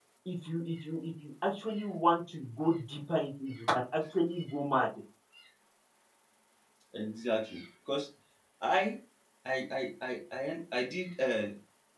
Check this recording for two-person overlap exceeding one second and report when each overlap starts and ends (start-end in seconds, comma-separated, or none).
none